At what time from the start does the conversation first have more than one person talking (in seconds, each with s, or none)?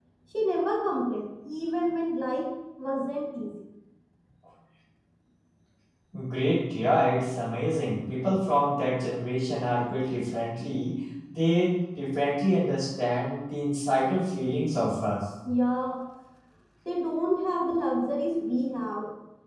none